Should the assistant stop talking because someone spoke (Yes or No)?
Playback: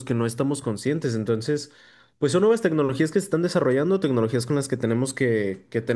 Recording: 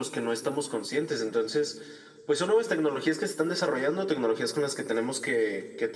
No